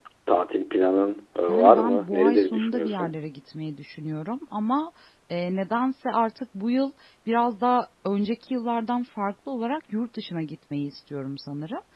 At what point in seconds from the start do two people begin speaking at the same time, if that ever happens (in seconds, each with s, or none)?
1.5 s